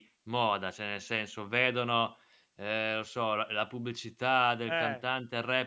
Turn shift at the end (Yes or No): No